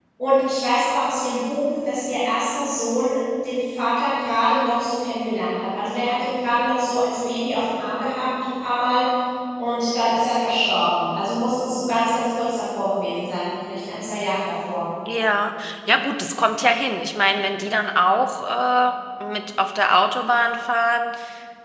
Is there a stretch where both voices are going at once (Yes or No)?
No